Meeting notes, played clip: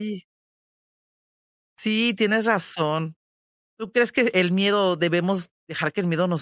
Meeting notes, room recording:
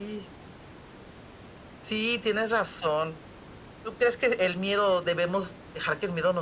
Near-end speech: none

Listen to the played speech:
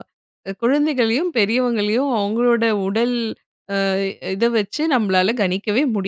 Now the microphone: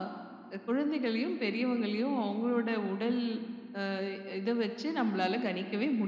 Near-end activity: none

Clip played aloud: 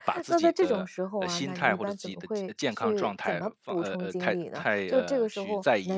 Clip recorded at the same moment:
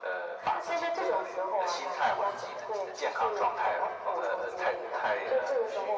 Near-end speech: none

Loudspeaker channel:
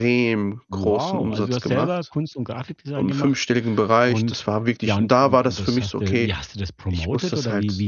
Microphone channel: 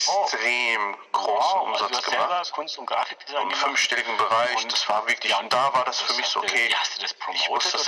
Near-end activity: none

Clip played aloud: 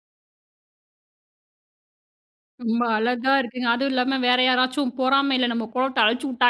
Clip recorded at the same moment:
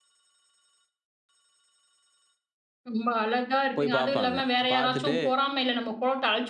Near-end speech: present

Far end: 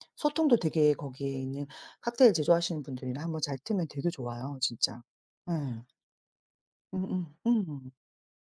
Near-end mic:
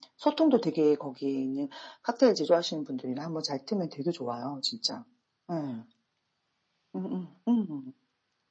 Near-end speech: none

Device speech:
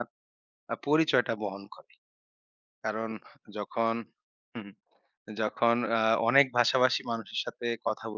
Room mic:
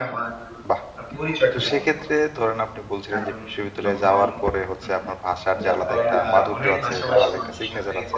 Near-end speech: present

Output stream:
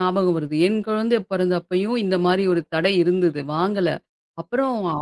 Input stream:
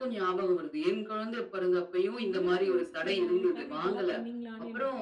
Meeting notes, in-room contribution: present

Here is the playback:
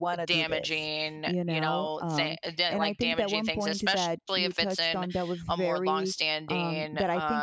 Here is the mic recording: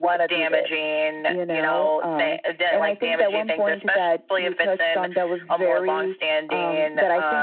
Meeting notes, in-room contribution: none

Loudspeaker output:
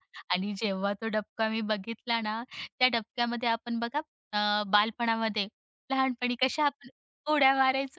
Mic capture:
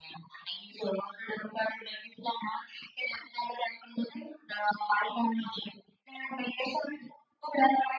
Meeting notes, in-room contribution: none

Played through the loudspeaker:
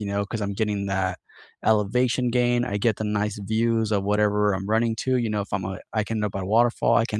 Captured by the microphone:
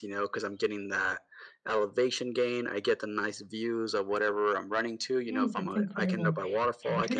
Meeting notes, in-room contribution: present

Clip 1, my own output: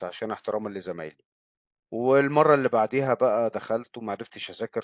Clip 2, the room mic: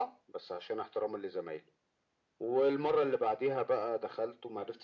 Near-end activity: none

